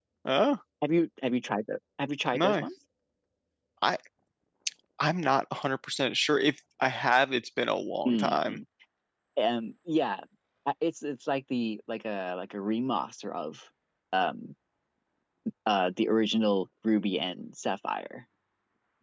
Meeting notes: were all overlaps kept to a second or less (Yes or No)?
Yes